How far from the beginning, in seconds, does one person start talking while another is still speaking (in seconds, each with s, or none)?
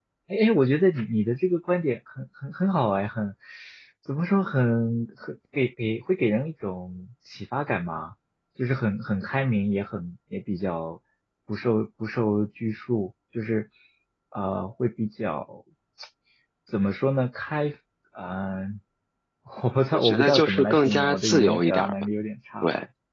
19.9 s